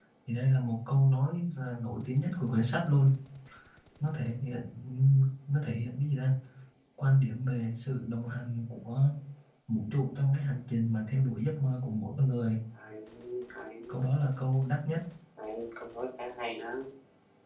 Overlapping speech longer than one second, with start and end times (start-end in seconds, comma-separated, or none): none